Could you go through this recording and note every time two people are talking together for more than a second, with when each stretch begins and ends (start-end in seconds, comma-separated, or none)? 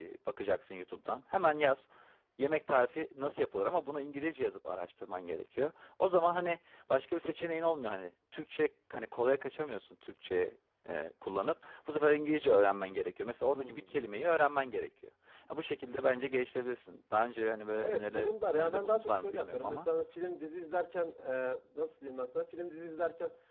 17.7-19.9